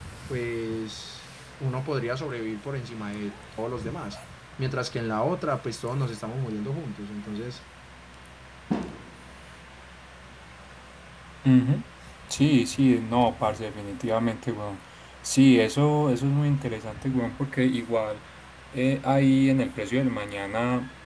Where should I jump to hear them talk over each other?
none

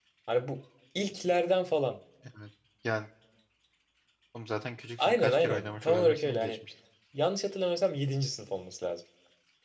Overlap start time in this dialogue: 5.0 s

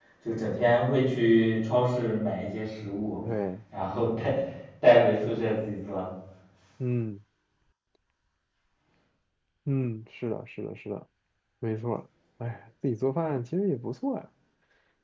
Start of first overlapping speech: none

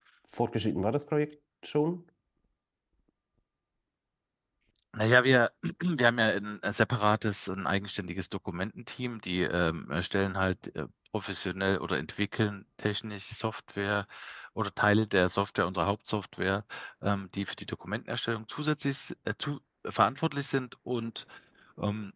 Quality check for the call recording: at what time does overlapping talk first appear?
none

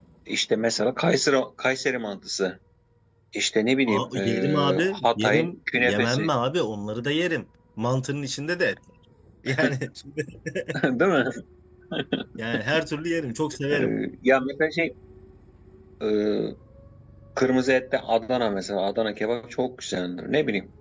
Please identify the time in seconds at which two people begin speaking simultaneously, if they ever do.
3.9 s

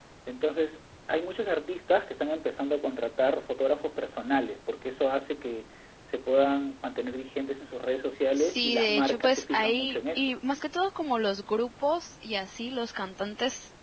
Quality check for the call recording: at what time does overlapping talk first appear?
8.4 s

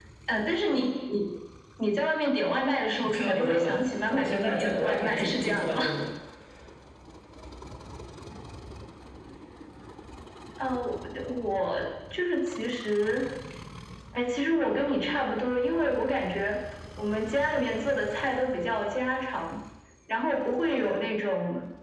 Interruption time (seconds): 3.0 s

